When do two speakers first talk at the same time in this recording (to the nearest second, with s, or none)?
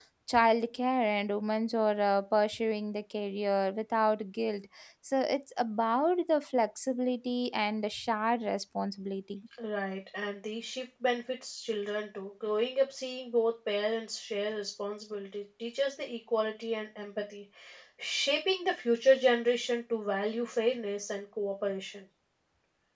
none